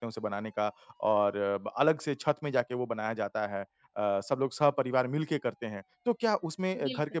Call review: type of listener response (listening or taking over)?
listening